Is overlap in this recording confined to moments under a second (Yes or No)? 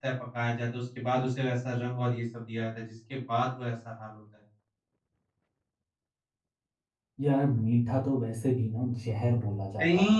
Yes